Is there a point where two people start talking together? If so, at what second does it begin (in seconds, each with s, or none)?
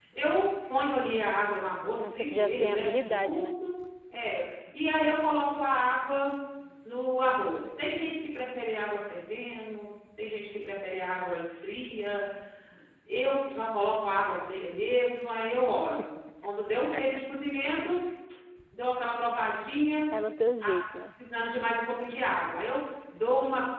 2.0 s